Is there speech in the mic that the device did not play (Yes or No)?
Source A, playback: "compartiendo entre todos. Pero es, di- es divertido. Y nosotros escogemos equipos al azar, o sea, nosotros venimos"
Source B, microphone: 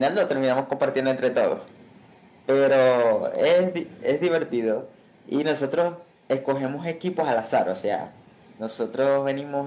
No